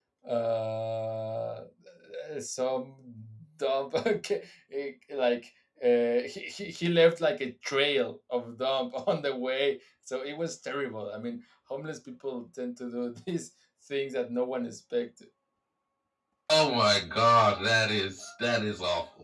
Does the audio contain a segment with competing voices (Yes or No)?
No